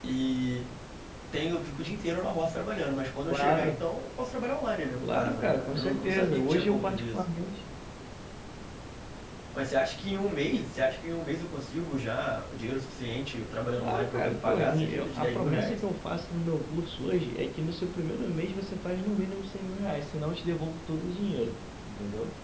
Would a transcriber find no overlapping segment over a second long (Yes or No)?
No